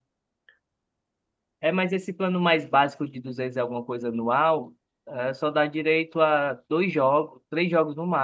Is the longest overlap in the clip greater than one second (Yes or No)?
No